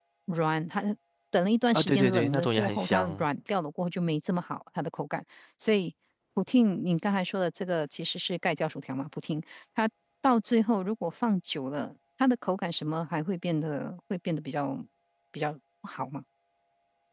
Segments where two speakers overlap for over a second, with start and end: 1.7-3.2

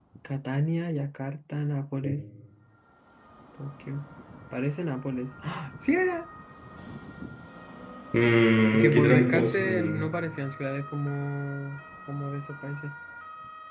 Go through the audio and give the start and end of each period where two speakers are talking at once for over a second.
8.7-10.1

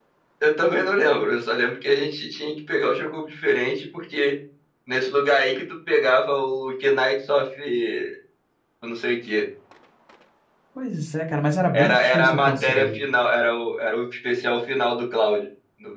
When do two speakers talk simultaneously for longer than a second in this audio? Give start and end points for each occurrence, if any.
11.7-12.9

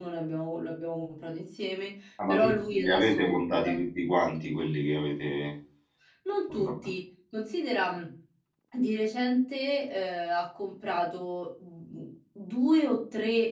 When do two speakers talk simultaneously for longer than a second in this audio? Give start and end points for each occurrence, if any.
2.3-3.8

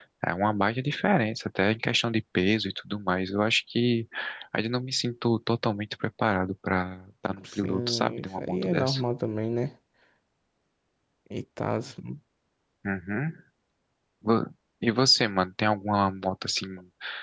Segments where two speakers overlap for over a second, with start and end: 7.5-9.0

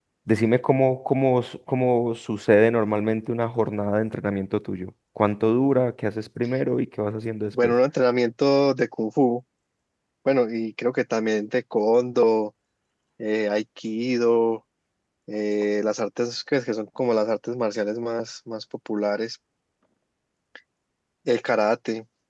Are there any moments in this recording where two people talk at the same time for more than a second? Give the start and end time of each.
none

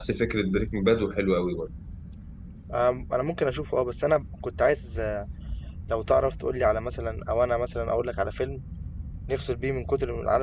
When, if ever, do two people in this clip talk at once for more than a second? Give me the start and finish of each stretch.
none

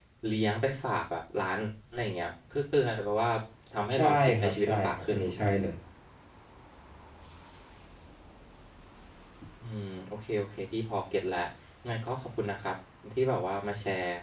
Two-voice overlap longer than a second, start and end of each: 3.9-5.5

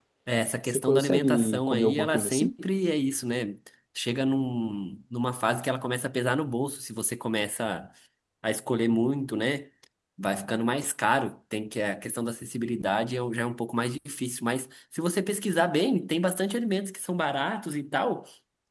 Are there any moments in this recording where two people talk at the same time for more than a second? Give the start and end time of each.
0.7-2.5

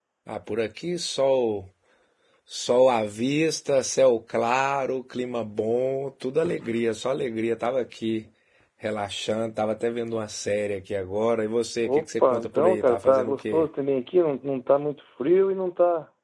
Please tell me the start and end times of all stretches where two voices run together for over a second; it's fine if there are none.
11.8-13.7

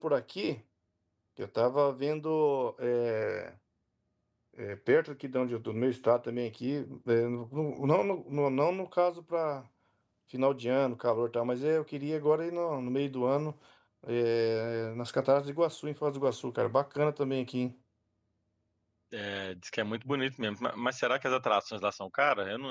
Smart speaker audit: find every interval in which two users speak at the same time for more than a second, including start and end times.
none

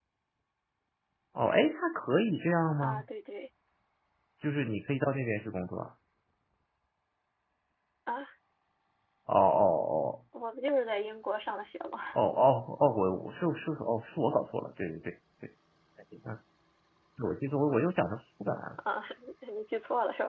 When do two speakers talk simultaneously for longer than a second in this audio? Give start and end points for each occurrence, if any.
none

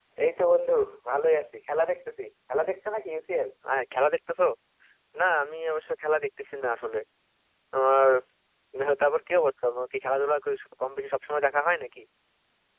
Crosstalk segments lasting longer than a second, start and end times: none

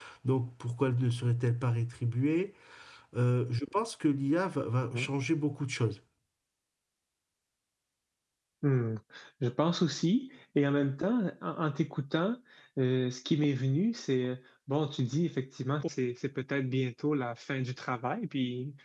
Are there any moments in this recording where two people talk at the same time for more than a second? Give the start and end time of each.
none

